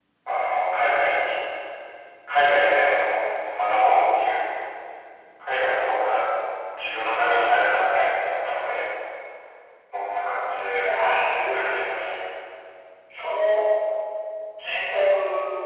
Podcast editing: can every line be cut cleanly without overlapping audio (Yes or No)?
No